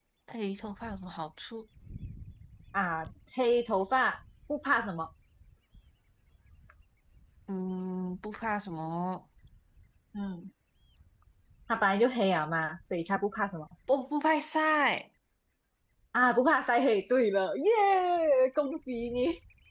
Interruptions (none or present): none